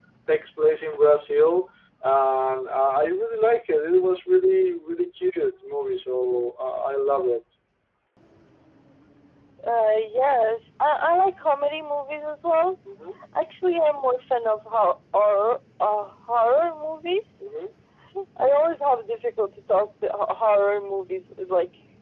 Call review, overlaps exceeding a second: none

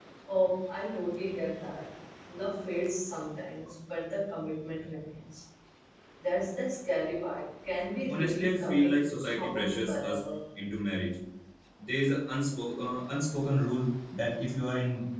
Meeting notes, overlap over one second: present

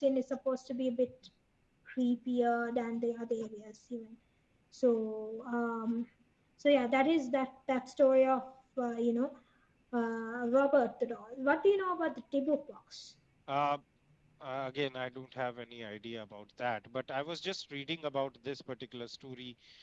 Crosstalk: none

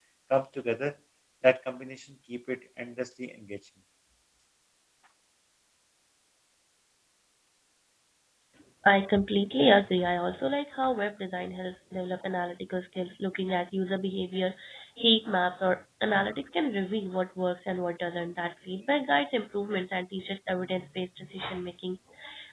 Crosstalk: none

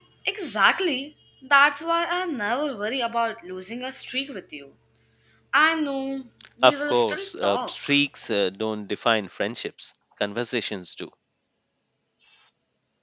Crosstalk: present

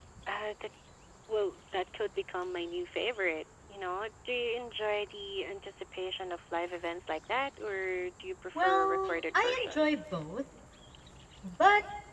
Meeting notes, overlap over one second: present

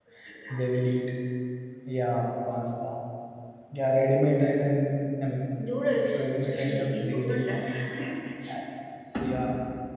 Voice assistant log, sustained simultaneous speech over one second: present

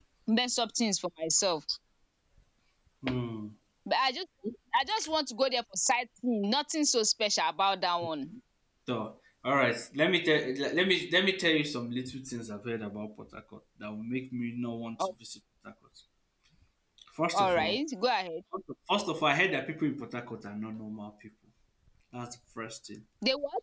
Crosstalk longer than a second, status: none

